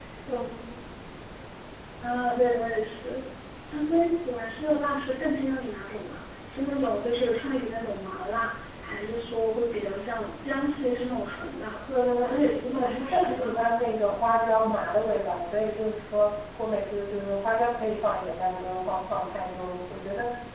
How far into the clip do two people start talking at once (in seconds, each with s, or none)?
12.2 s